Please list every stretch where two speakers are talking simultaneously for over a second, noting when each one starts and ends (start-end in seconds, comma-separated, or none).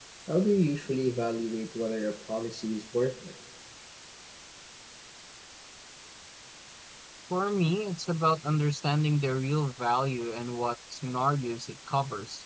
none